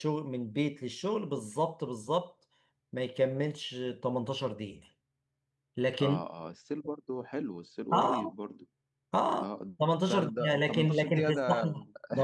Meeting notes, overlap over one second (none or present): present